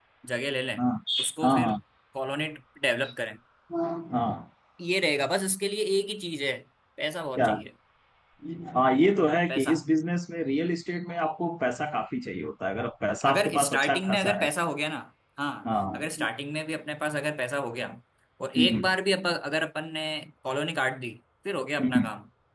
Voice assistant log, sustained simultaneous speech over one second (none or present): present